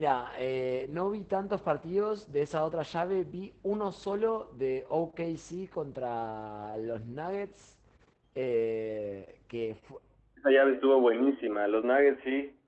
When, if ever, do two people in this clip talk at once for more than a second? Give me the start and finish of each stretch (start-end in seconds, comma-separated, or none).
none